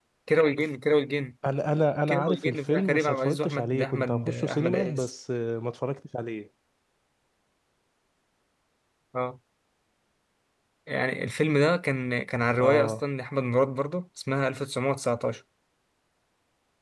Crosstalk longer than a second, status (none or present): present